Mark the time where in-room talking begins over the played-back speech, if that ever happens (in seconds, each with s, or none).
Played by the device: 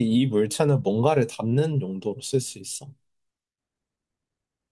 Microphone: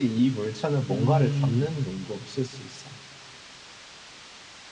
0.9 s